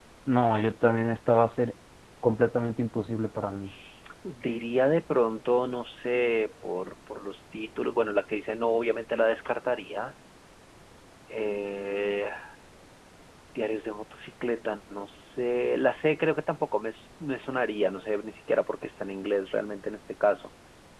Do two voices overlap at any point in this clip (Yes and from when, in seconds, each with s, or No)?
No